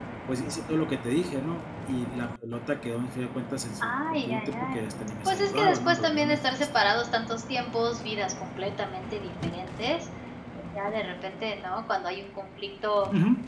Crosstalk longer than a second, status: present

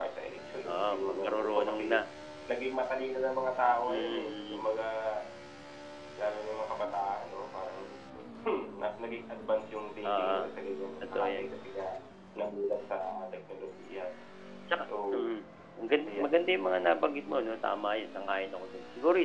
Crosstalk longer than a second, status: present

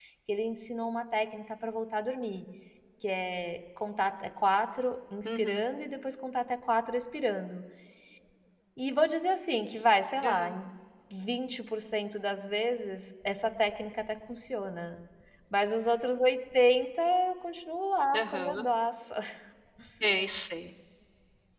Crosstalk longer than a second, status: none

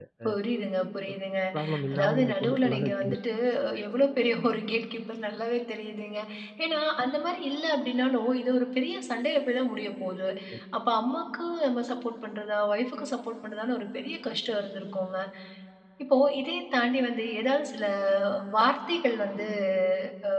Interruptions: present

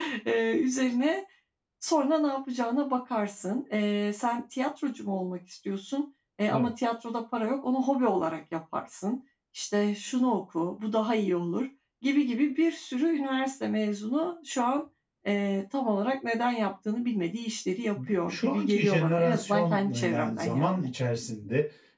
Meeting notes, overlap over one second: present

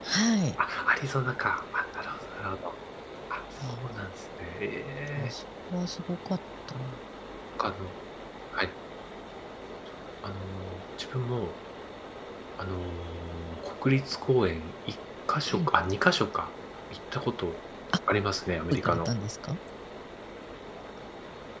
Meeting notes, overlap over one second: none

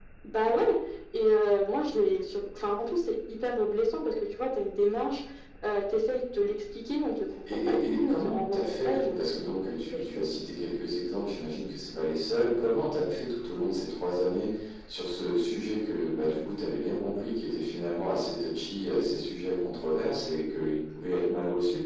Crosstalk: present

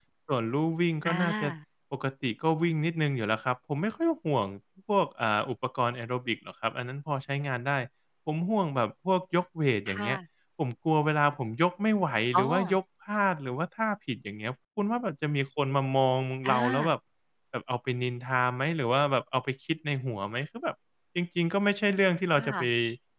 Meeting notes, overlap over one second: none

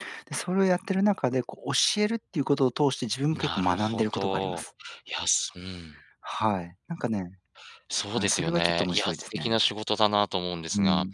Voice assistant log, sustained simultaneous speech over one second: present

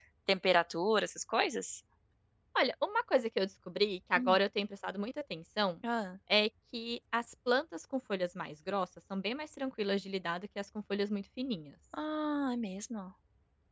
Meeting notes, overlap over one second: none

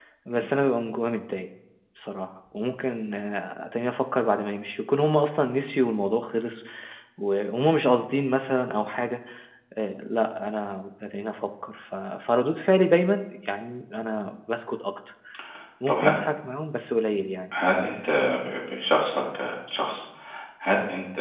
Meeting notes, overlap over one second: none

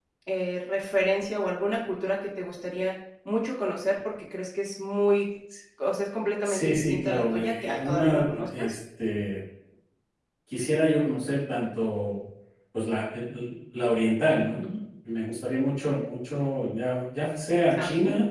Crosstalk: present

